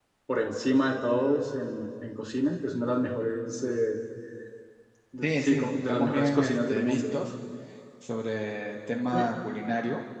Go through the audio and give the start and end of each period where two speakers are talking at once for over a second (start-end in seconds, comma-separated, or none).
5.2-7.0